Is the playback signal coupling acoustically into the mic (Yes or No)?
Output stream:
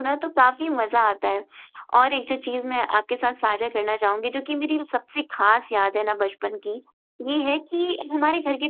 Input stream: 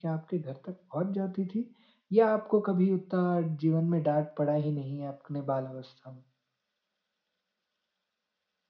No